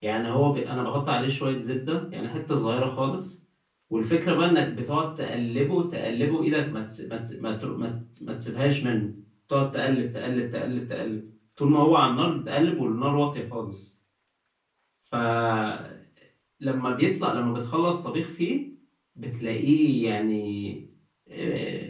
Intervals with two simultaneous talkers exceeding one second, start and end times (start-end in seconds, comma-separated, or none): none